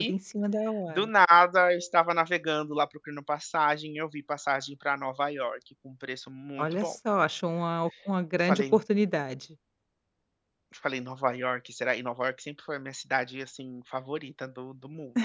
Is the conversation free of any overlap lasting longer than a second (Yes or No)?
Yes